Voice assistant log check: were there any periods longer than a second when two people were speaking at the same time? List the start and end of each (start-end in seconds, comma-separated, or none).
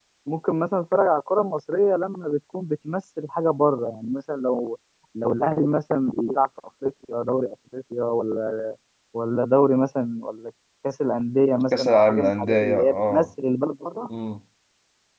11.8-13.3